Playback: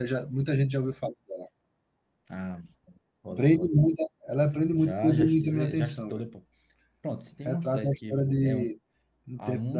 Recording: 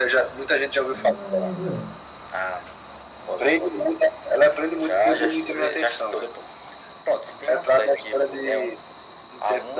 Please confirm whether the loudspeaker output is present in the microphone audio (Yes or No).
Yes